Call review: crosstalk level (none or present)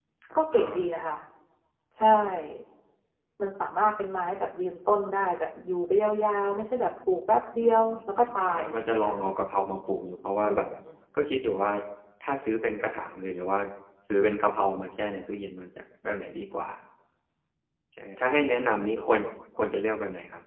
present